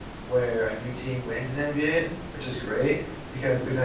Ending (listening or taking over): listening